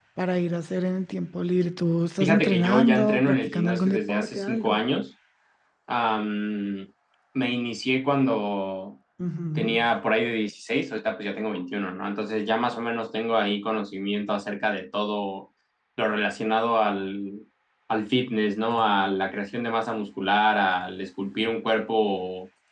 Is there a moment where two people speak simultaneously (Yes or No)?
Yes